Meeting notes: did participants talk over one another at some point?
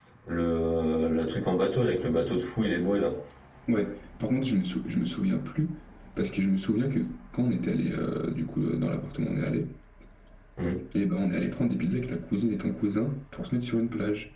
No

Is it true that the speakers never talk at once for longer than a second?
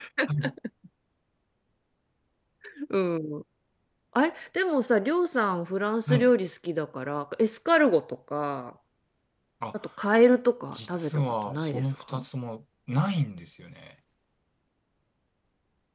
No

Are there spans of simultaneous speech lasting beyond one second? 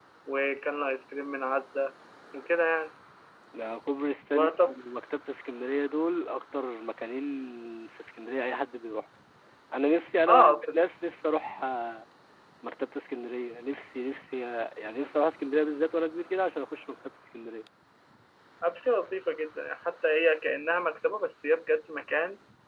No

